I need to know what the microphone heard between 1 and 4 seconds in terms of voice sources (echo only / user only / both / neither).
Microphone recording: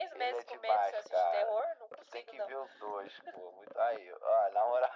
echo only